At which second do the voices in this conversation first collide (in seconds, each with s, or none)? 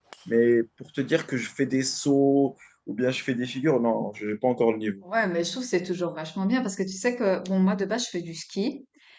none